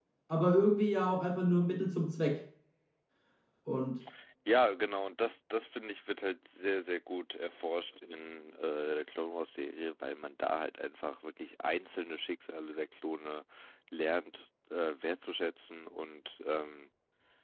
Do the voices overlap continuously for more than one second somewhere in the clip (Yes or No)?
No